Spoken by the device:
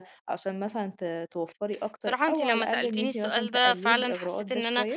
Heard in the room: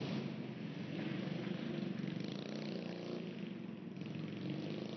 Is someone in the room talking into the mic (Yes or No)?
No